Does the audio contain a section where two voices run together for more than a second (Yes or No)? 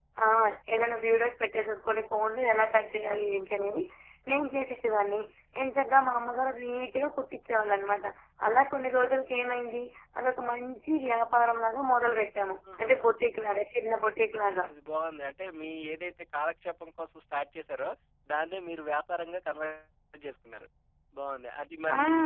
No